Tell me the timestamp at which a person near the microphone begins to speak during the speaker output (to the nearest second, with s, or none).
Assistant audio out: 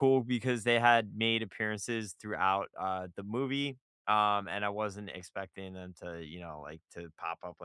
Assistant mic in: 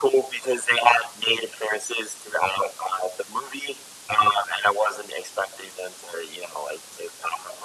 none